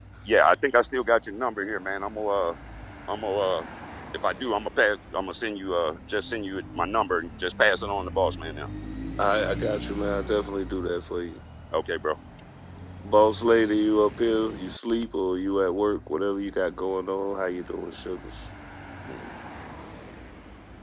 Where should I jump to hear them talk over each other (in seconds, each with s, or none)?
none